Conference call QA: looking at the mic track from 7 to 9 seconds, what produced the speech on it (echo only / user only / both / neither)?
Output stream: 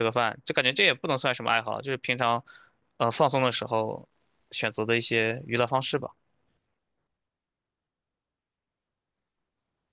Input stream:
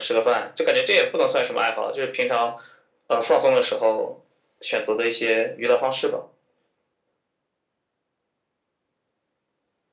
neither